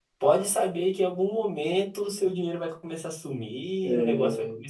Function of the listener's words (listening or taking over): listening